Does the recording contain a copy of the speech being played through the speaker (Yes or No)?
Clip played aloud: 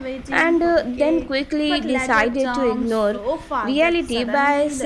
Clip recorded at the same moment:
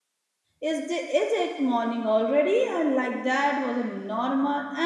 No